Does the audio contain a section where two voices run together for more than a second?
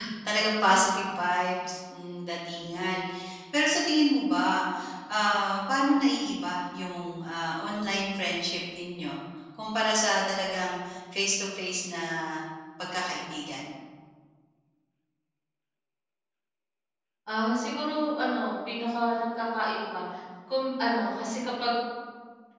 No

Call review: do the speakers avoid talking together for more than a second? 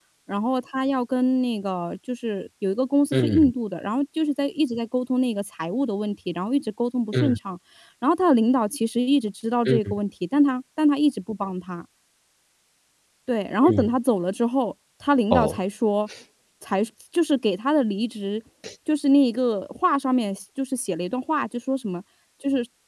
Yes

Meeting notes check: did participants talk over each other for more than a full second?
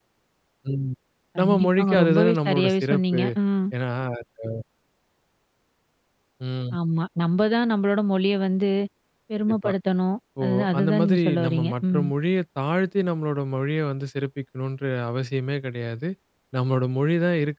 Yes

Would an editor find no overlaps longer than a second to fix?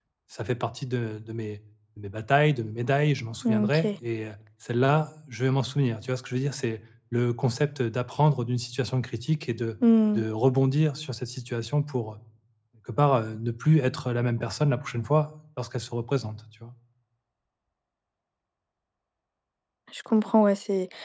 Yes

